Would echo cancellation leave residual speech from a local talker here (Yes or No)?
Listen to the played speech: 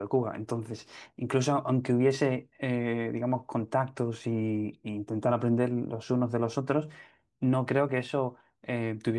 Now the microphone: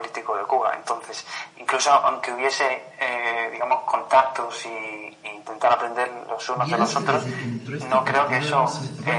Yes